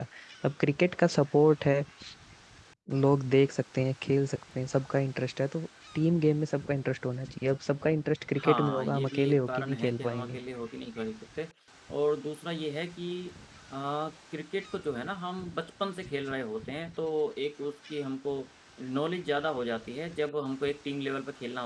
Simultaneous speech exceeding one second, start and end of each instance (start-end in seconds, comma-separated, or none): 8.4-10.4